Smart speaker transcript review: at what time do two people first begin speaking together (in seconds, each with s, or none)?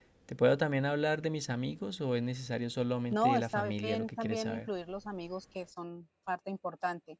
3.1 s